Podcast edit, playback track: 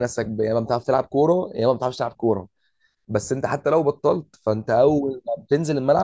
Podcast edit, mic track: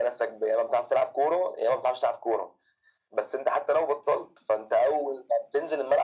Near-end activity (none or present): none